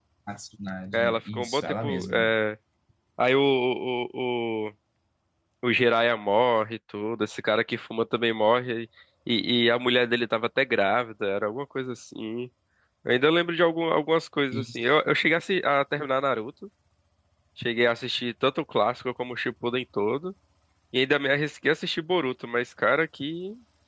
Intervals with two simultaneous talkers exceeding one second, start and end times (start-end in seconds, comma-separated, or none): 0.9-2.3